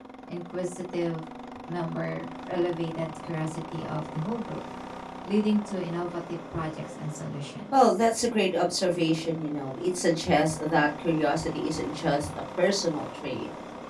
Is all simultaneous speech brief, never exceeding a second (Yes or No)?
Yes